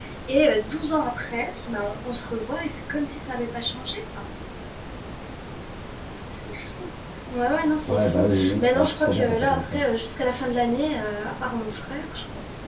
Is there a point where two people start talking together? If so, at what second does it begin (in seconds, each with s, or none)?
7.9 s